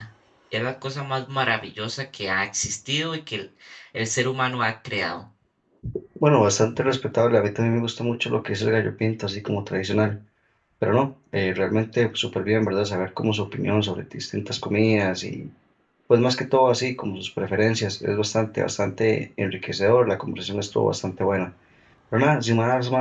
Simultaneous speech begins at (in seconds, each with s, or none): none